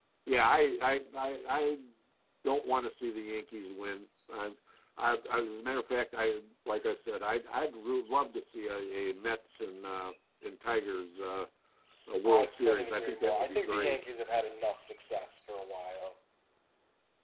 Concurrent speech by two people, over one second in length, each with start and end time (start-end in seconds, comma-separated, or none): 12.2-14.0